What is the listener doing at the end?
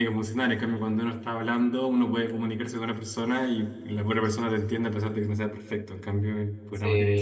taking over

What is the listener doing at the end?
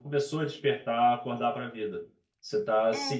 listening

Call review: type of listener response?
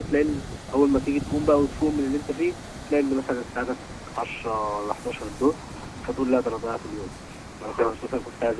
listening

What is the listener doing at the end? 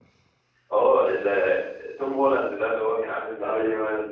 taking over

